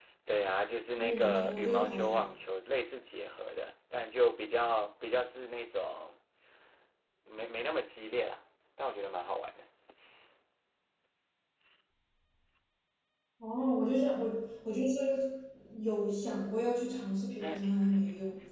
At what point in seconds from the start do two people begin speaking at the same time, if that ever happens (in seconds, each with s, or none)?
1.0 s